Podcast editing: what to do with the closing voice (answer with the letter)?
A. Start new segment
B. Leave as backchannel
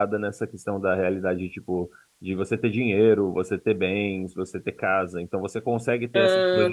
B